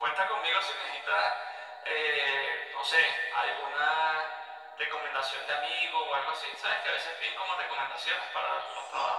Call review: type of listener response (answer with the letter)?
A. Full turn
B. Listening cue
A